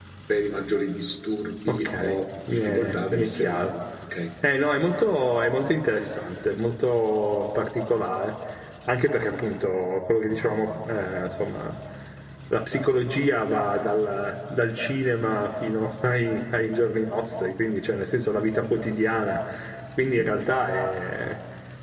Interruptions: present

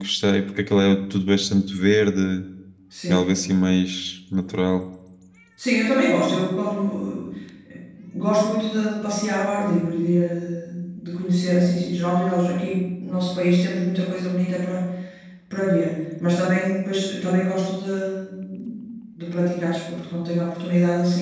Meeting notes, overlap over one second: none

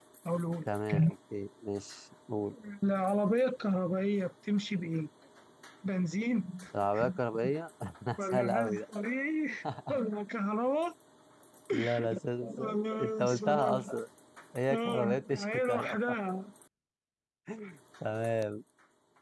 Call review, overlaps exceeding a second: present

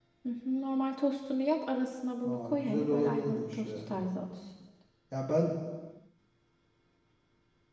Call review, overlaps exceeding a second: present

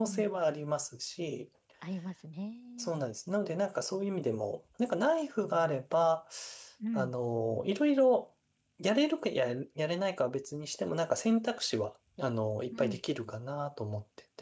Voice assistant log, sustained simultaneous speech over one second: none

